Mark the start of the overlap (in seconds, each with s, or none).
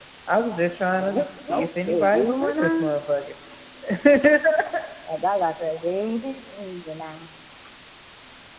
0.9 s